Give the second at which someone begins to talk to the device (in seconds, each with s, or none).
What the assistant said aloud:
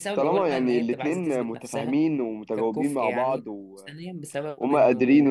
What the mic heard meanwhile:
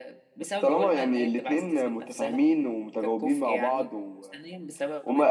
none